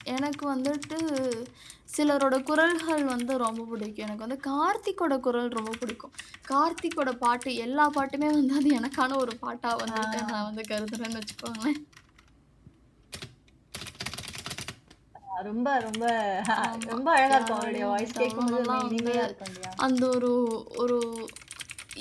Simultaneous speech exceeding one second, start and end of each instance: 17.4-19.1

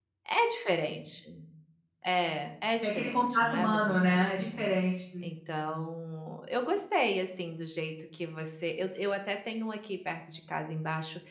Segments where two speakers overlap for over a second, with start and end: 2.8-4.6

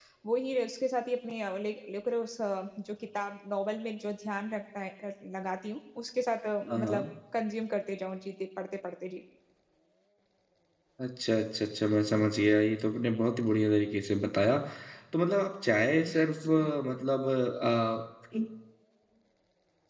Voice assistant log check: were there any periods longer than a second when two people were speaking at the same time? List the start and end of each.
none

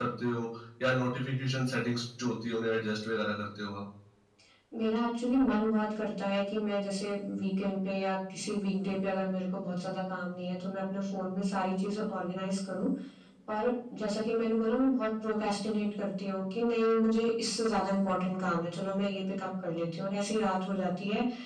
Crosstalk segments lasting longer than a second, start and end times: none

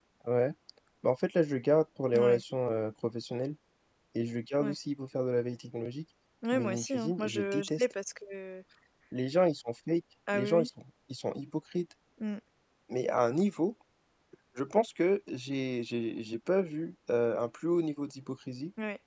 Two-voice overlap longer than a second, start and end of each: 6.5-7.9

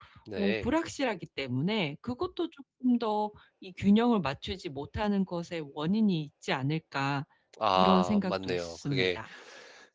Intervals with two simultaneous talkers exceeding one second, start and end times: 7.8-9.2

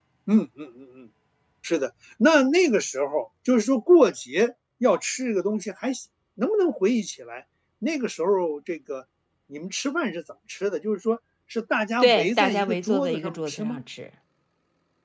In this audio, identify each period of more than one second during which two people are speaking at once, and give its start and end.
12.0-13.8

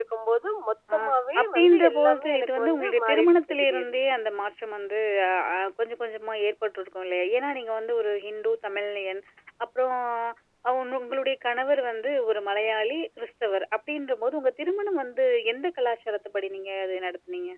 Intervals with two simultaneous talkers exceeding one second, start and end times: 1.4-4.0

